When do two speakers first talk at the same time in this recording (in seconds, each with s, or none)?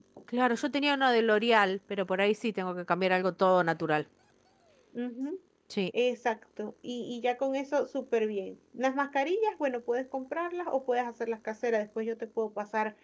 none